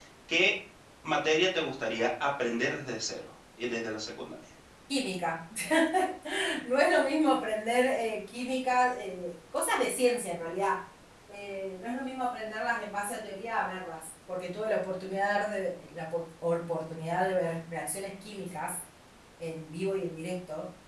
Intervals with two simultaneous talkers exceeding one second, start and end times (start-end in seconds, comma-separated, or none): none